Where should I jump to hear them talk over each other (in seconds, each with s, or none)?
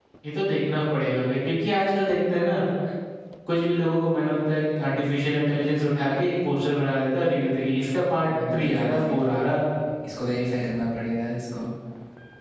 7.9 s